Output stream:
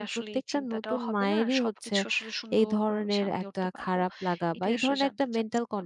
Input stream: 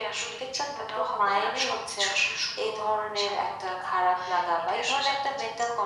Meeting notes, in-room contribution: none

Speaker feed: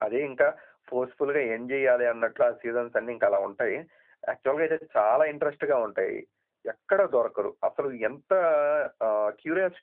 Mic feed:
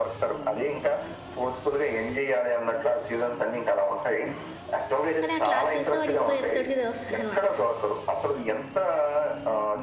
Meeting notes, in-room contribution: present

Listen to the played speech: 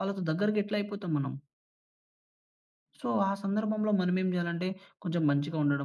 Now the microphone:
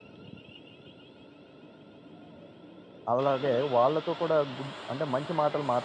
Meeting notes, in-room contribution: present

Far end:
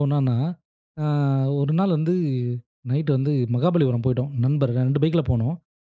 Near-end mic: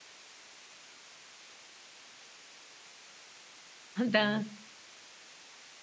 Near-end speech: present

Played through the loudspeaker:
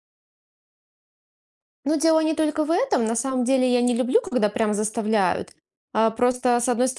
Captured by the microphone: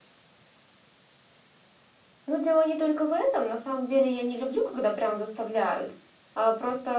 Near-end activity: none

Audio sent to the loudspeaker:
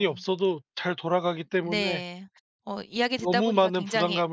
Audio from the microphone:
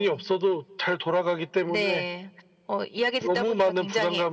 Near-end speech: none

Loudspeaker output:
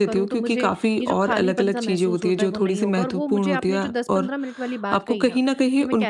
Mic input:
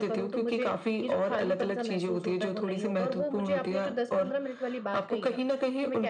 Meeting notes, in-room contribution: none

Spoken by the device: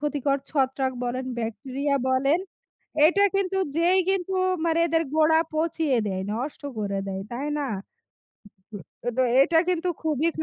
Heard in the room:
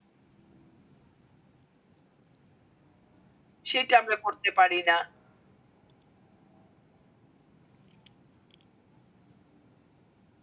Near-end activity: present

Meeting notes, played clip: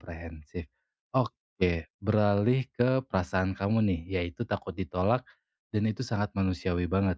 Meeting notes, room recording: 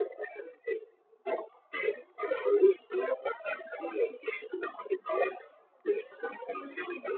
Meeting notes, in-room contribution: none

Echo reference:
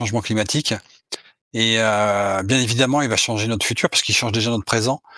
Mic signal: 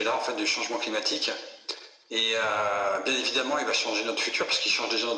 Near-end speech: none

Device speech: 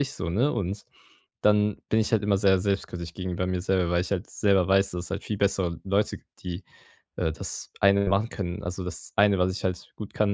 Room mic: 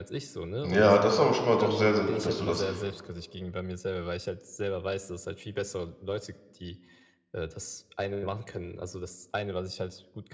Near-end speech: present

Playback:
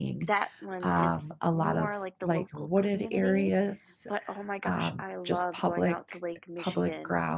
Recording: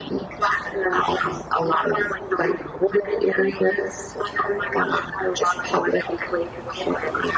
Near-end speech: none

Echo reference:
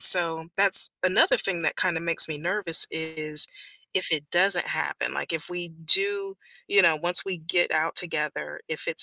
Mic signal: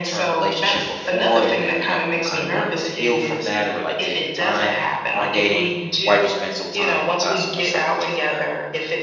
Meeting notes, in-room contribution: present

